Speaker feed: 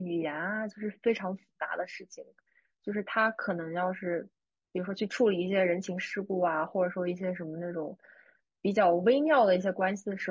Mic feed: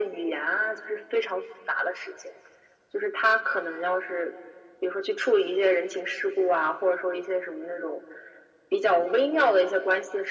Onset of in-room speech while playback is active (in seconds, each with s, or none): none